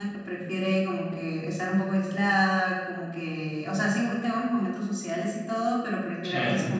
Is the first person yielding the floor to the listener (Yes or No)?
No